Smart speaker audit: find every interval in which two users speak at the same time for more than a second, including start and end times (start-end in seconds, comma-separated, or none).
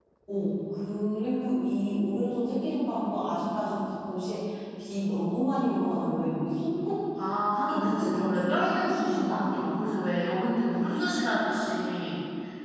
7.7-9.4